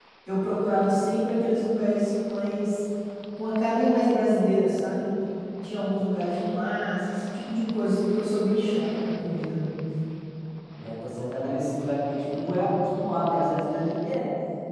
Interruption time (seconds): none

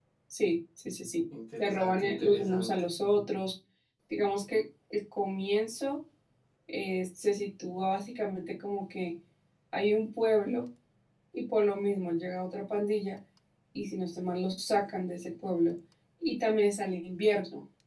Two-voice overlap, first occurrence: 1.6 s

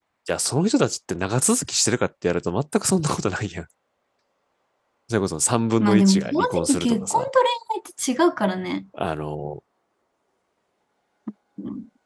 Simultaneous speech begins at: 5.8 s

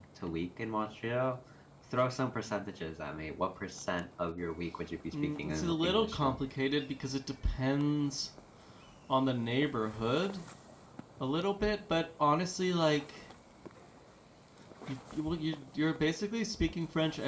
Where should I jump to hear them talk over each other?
5.1 s

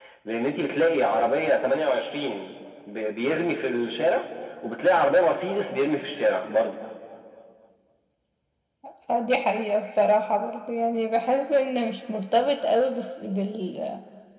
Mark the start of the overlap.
none

